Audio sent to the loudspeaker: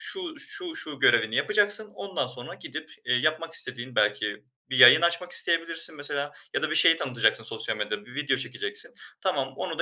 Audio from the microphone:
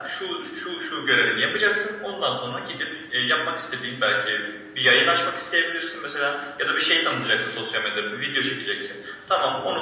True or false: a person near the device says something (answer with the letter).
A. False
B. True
A